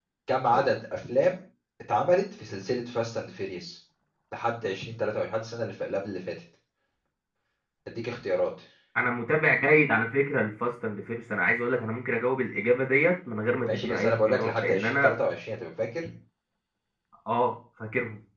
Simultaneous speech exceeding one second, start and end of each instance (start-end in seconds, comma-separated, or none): 13.7-15.1